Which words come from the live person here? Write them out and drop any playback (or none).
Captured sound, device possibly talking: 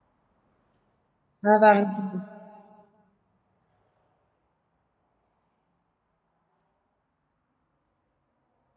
انا بعمل كده